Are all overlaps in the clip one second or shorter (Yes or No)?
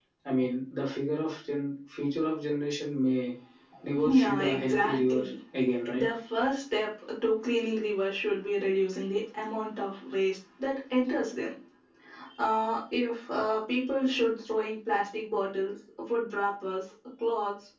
No